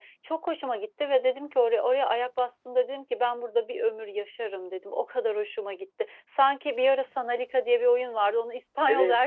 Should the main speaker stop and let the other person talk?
No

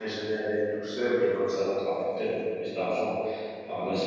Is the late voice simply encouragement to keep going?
No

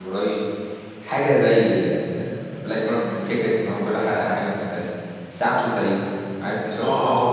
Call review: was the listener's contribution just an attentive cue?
No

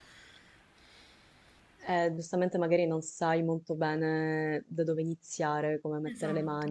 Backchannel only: Yes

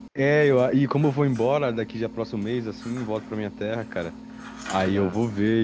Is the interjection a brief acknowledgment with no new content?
Yes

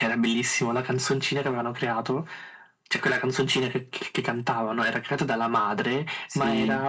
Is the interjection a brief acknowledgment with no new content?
Yes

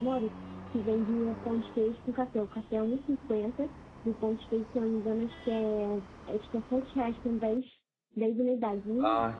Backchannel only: No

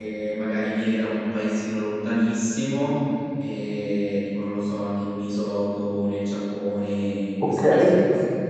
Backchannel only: Yes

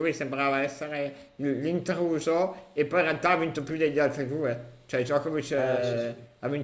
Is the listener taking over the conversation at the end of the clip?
No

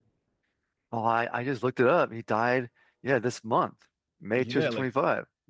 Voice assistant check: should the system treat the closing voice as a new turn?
Yes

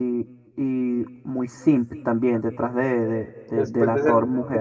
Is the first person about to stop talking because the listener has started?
Yes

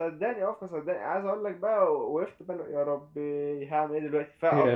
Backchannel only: Yes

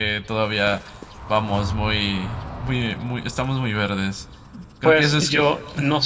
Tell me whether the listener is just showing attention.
No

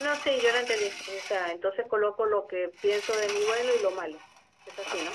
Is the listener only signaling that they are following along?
No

